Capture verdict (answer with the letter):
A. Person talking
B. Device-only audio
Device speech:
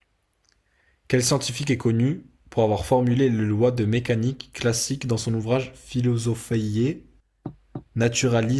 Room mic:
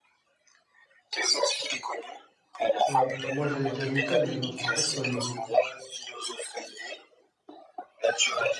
A